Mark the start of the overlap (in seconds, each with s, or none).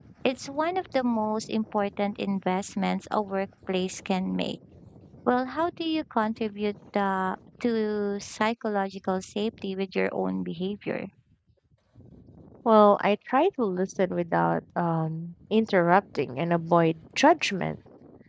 none